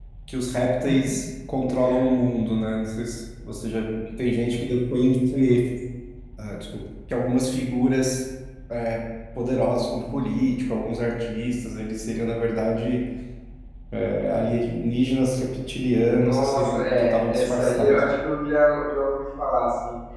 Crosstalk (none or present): present